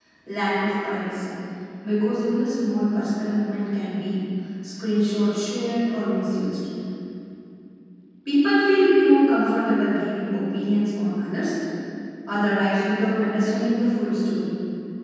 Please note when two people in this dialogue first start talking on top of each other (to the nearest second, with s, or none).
none